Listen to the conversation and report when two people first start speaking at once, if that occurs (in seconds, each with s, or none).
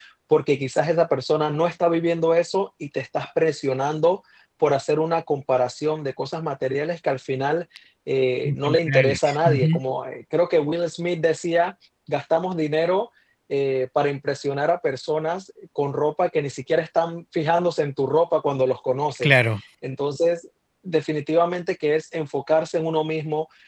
8.4 s